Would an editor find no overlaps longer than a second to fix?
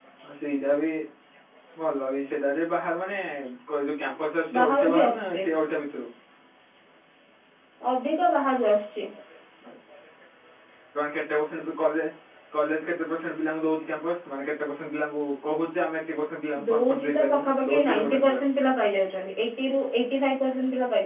No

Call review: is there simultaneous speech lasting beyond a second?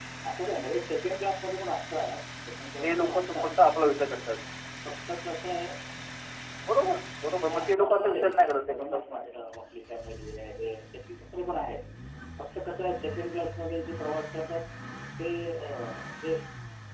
Yes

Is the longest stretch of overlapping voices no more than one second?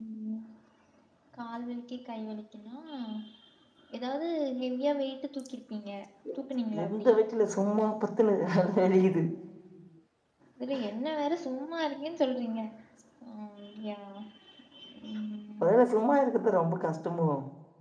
Yes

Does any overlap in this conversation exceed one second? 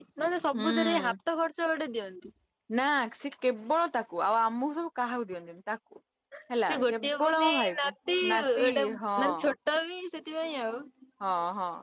Yes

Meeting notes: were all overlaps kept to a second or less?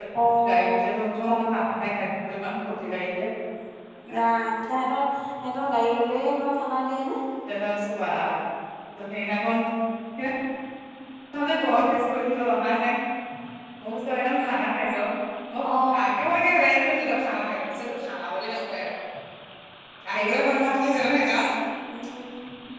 Yes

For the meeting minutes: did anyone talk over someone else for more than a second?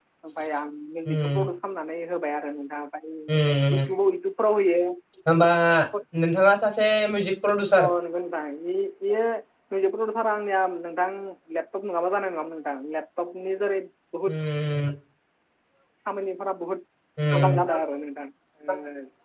No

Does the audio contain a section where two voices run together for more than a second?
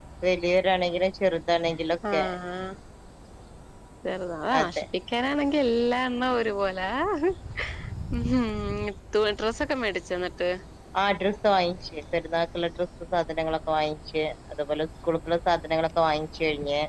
No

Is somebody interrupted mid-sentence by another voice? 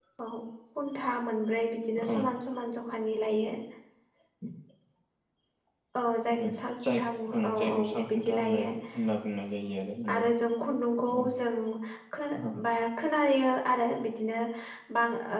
Yes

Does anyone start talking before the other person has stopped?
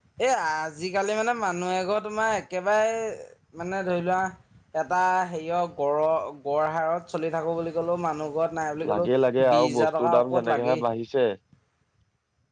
Yes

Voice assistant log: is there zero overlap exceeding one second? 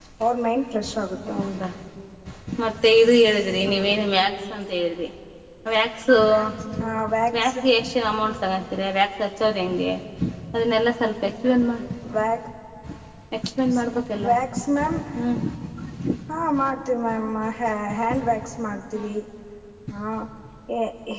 Yes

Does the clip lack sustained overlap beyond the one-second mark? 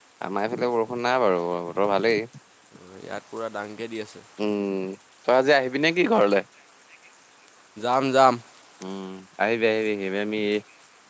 Yes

